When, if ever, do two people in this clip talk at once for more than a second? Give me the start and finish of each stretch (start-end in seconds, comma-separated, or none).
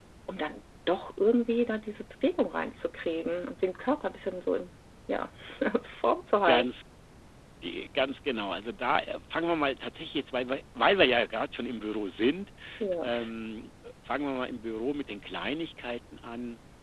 none